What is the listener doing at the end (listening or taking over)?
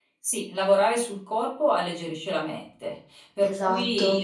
listening